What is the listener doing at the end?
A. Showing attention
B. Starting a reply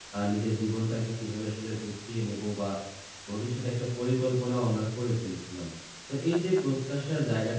A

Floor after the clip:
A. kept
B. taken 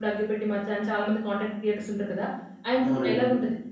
A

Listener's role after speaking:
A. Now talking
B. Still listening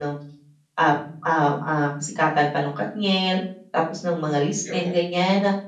B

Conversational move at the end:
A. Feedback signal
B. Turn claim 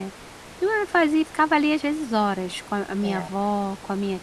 A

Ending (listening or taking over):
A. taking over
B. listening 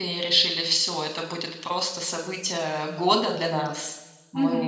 A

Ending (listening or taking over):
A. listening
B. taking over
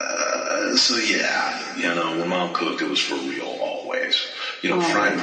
A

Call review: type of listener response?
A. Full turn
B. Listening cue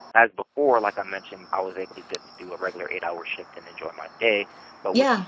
B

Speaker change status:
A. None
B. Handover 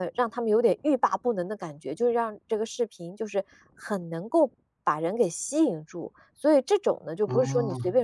A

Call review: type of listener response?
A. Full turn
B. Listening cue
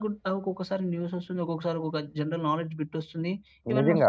A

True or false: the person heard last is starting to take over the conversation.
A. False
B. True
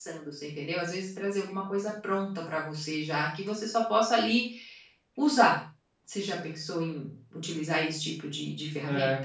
B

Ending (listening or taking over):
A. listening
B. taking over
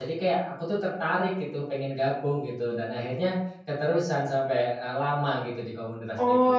B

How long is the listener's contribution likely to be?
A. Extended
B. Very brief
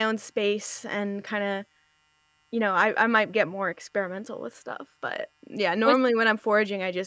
B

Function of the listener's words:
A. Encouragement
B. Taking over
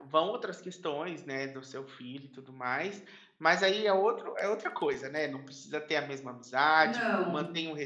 A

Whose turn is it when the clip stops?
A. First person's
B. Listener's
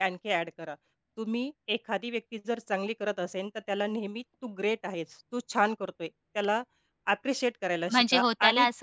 B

